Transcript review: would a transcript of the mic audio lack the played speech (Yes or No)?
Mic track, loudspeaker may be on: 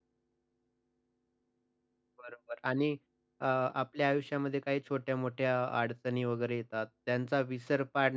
Yes